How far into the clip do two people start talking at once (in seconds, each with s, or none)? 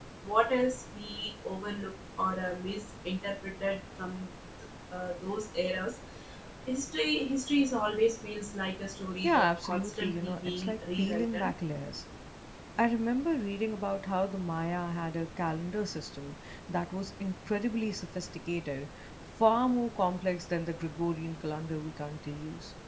9.2 s